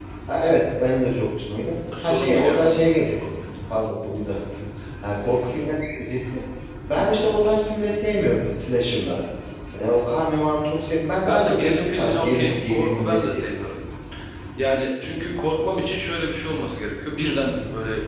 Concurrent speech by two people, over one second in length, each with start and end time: 2.0-3.3, 11.3-13.6

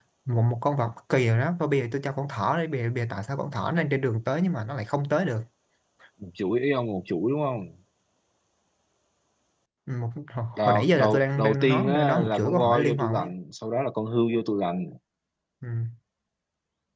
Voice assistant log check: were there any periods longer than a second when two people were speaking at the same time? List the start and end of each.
10.6-13.3

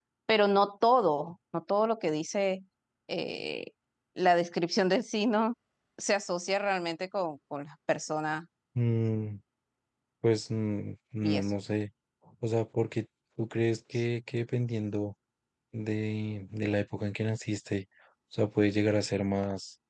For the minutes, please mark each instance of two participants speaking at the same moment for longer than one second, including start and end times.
none

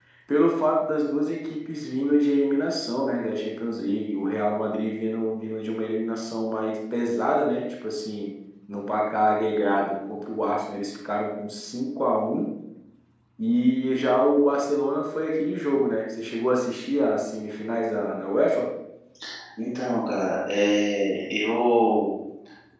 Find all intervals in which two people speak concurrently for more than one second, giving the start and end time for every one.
none

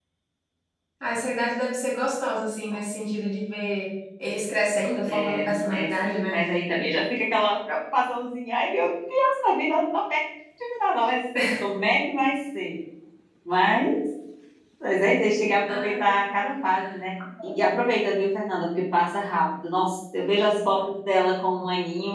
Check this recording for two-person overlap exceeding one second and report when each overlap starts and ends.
5.1-6.5

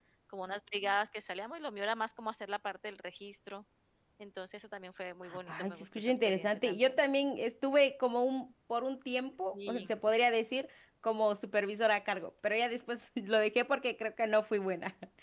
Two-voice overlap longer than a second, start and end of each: 5.5-7.0

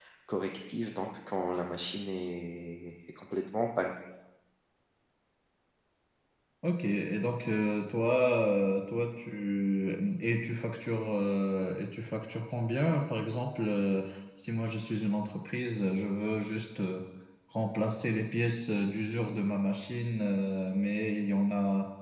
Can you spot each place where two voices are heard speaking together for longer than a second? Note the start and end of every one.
none

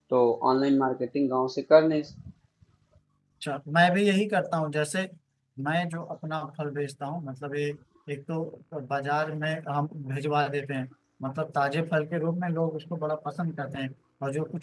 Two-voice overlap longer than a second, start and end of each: none

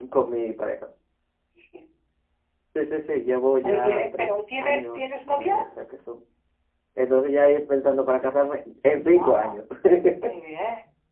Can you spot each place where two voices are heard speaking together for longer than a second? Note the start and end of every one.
3.6-5.6

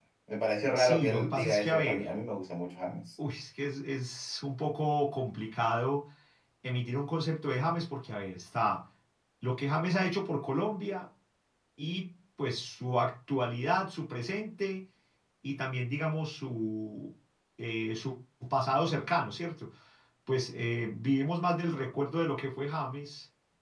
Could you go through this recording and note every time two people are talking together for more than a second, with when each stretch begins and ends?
0.7-2.1

